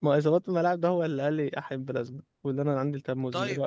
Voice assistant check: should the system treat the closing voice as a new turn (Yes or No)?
Yes